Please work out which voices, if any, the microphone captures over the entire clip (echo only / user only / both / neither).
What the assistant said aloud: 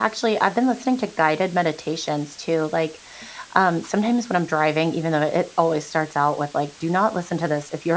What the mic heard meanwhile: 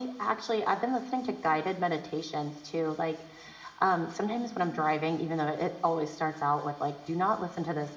echo only